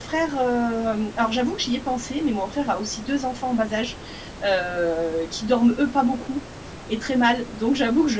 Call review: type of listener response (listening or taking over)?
listening